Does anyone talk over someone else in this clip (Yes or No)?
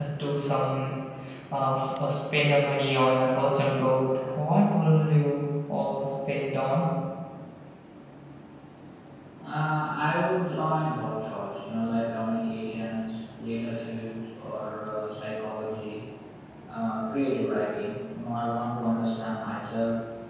No